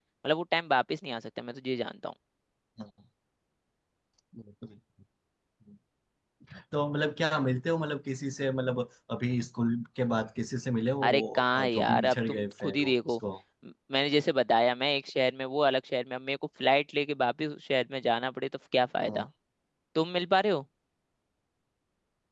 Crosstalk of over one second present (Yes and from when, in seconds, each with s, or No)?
Yes, from 11.0 s